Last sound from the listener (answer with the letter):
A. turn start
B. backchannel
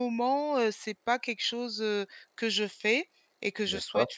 B